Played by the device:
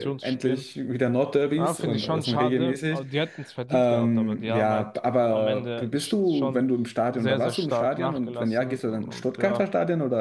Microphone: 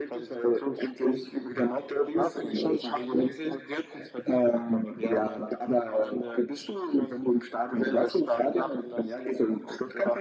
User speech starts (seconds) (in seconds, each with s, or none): none